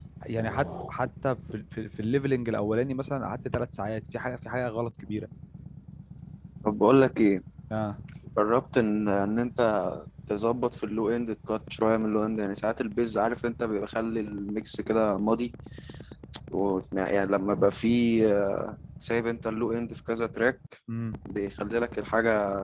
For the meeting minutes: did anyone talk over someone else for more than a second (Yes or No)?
No